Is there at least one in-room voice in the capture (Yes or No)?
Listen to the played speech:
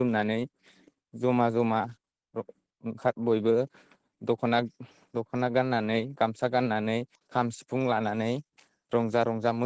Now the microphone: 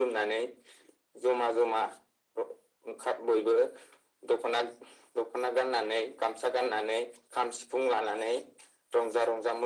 No